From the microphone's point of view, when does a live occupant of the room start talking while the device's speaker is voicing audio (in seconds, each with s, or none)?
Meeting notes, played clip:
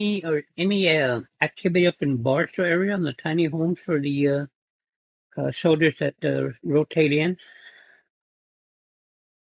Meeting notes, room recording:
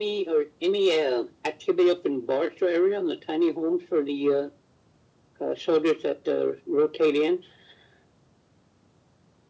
none